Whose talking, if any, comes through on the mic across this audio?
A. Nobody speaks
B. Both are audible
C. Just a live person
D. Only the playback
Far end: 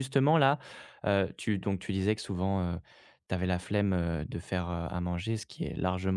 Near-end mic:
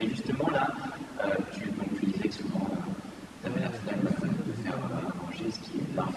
B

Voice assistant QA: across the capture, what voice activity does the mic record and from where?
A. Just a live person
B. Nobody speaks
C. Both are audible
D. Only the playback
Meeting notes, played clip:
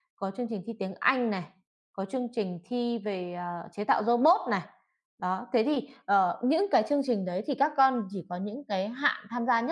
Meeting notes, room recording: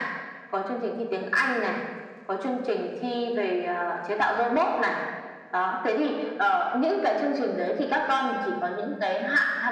D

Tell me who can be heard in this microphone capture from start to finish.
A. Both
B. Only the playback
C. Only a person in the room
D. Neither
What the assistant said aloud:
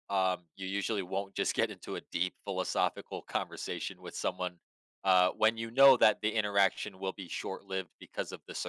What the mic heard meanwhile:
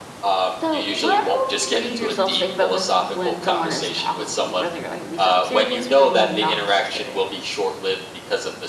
A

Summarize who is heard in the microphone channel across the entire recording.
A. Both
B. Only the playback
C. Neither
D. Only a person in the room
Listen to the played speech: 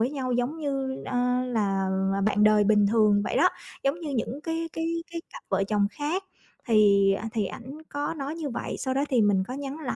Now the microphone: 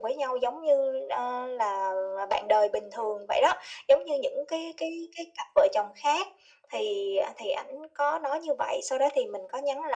B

